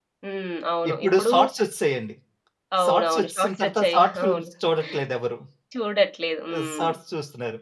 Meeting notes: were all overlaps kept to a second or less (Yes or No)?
No